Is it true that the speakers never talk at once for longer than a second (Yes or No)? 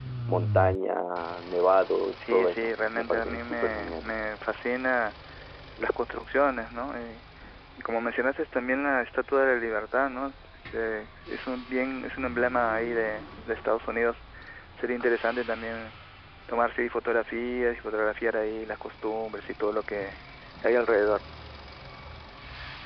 No